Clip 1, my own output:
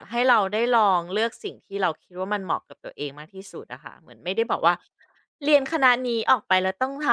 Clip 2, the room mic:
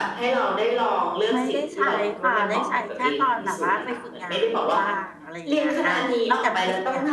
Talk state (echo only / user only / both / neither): both